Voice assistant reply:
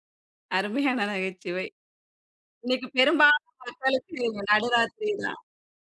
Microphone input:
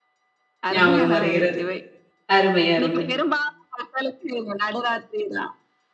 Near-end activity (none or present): present